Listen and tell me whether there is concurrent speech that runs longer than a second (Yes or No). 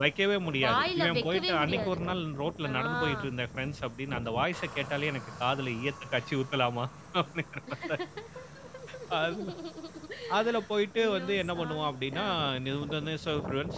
Yes